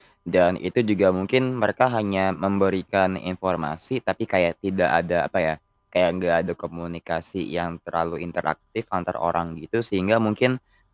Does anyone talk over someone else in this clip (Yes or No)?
No